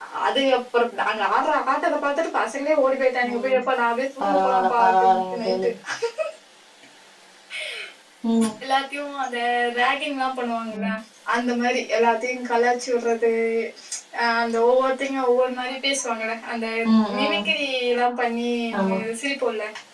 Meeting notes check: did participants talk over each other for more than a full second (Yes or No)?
Yes